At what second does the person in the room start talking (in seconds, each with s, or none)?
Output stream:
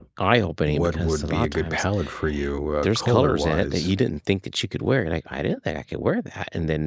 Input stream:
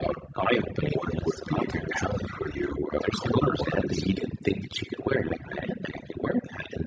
none